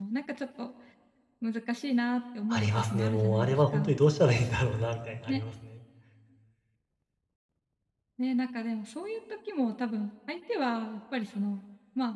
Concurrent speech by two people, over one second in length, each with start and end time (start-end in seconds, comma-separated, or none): 2.5-3.9